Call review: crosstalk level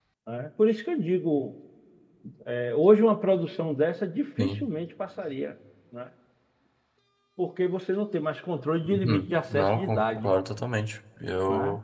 present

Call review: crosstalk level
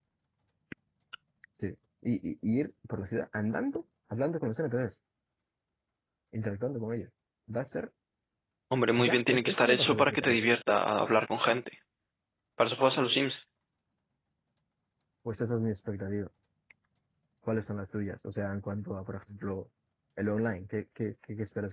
present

